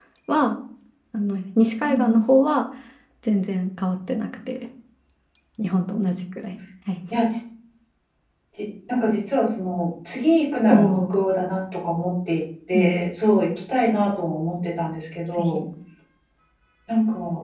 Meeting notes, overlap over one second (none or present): none